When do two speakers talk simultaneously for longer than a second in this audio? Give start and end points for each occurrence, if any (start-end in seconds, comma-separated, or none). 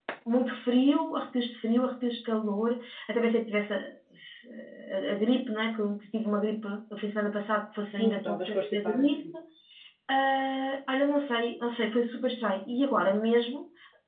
7.8-9.2